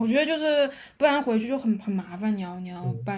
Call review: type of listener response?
taking over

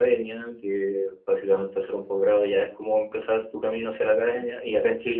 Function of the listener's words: listening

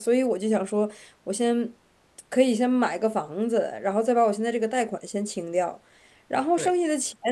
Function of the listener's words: listening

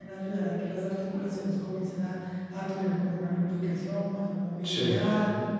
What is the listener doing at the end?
listening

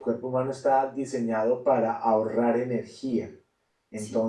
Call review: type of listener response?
listening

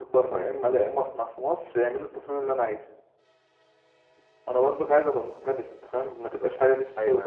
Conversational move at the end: taking over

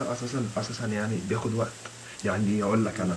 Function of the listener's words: listening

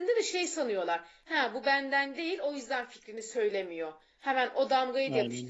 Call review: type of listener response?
listening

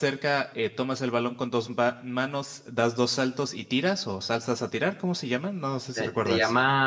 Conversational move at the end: taking over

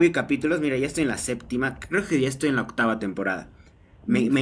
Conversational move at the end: listening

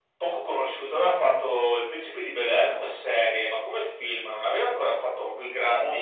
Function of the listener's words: taking over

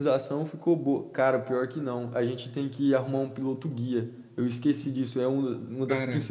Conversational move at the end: listening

